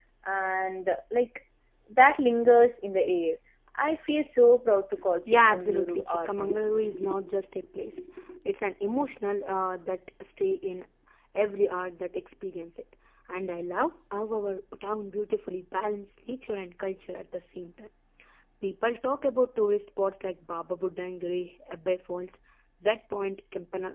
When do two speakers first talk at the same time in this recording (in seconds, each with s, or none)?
5.2 s